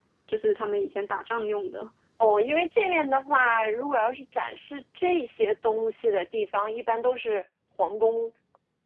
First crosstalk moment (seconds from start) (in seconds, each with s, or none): none